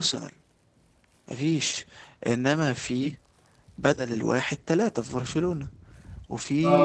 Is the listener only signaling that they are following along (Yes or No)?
No